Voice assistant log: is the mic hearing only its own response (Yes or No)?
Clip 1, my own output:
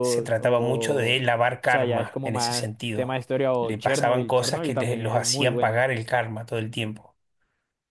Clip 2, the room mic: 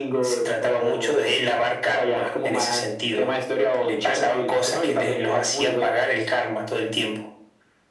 Yes